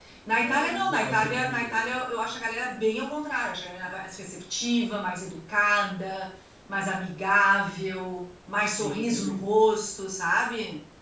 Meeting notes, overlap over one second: present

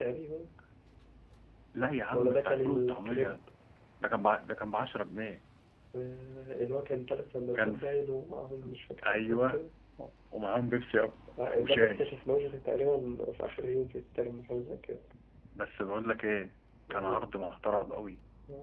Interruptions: present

